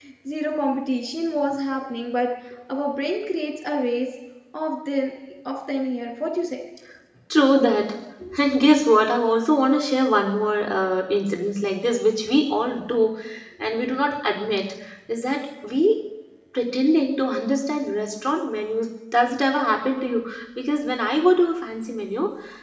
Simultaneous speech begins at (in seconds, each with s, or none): none